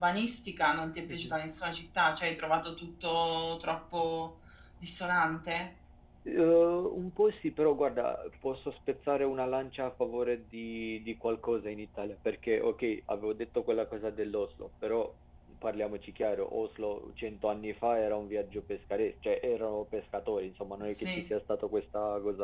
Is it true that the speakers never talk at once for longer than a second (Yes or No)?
Yes